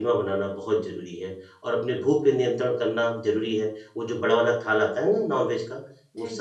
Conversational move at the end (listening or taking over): listening